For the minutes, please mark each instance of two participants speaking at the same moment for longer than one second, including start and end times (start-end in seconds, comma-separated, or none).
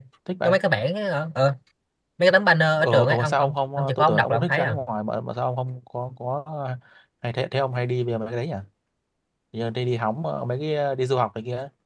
2.8-4.8